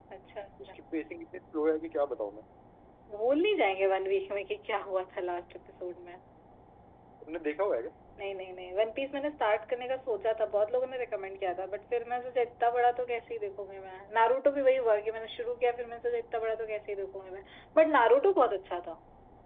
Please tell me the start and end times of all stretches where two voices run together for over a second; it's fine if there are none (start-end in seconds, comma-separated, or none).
none